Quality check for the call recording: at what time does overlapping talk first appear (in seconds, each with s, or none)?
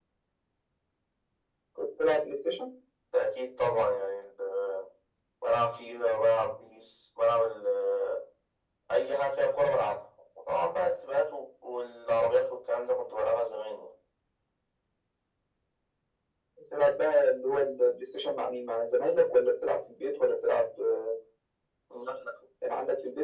none